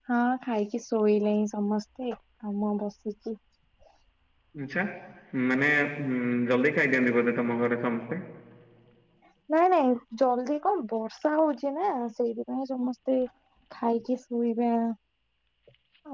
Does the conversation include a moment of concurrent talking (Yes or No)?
No